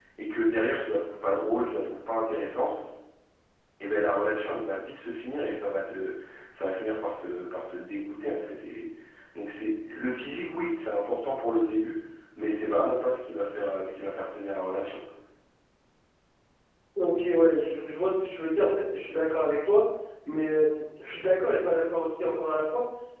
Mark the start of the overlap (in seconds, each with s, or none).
none